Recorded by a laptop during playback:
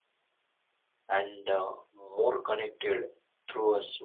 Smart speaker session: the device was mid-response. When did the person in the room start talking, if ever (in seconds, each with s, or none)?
1.1 s